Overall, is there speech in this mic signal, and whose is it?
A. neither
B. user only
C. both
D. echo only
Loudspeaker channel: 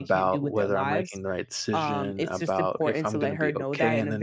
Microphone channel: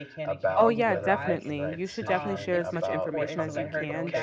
C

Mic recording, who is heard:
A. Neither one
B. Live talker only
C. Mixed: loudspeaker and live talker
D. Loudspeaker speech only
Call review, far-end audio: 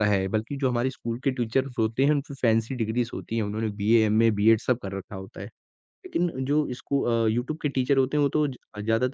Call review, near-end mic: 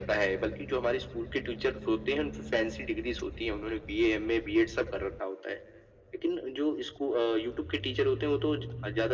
D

